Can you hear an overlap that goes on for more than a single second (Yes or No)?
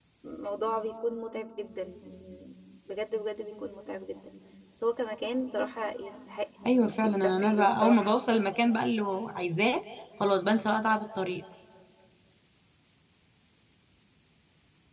Yes